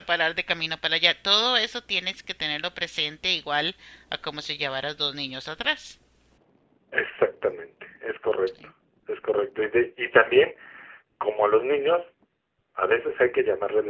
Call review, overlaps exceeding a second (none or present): none